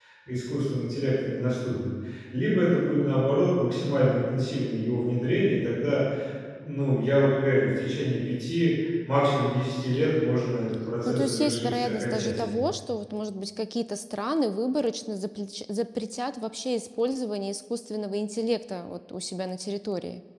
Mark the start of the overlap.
11.0 s

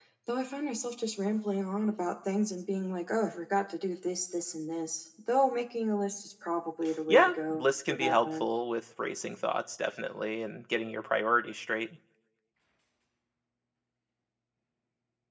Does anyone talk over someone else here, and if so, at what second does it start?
7.1 s

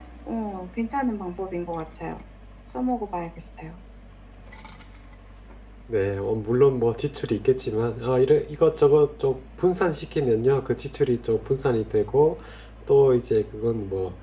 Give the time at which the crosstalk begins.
none

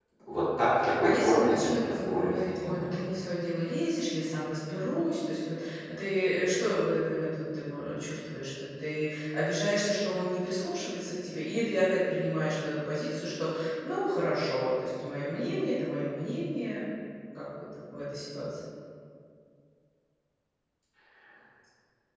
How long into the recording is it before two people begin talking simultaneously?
1.0 s

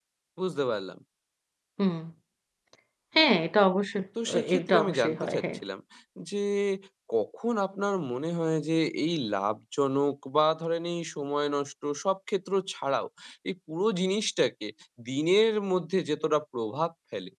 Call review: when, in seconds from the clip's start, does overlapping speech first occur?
4.2 s

